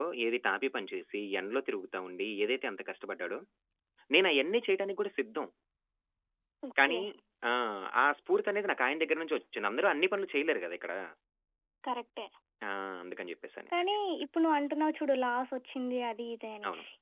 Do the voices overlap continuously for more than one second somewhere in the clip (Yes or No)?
No